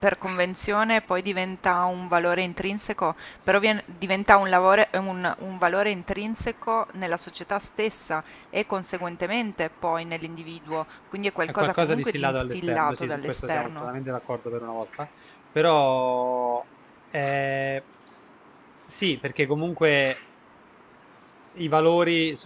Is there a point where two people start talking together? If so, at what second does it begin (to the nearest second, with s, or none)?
11 s